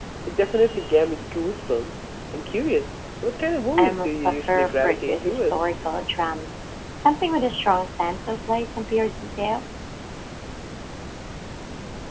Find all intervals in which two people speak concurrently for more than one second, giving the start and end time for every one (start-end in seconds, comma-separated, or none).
3.8-5.8